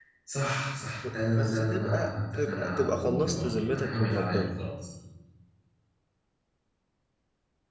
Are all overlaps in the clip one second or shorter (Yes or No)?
No